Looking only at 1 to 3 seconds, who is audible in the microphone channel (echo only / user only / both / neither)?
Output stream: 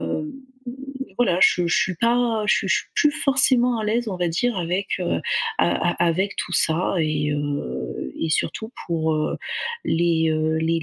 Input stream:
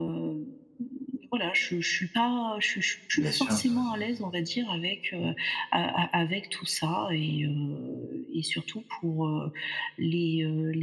echo only